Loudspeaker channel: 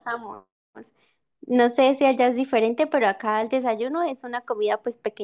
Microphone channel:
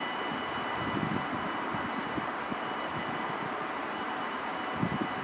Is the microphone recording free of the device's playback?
Yes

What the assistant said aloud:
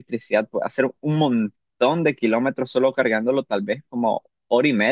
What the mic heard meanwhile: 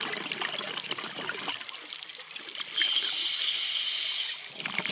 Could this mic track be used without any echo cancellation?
Yes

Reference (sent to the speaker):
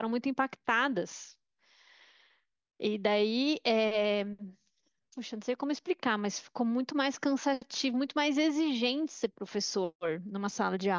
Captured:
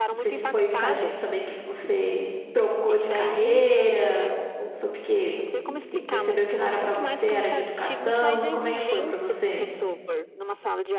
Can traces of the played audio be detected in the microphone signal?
Yes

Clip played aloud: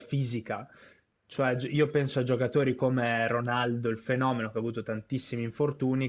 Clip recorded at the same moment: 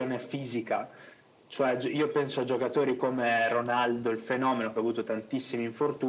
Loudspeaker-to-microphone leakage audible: Yes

